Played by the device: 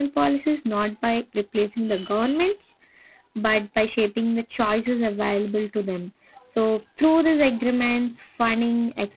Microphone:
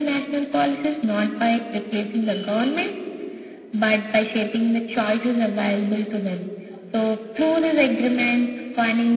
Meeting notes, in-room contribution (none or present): none